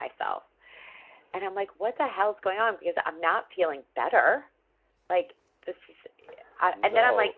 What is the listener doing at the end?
listening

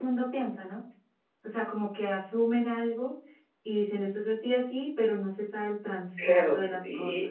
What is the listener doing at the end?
taking over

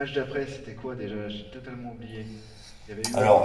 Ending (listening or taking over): taking over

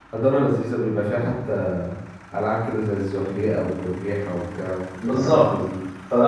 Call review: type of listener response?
taking over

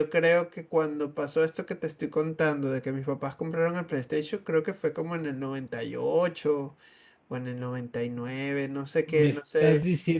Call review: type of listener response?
taking over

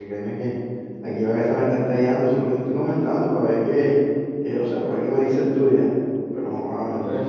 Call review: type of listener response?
taking over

